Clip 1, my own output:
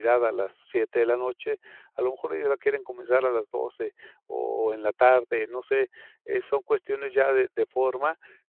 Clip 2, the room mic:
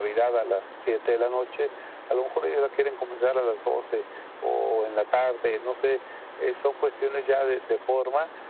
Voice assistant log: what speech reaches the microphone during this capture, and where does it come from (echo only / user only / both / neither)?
echo only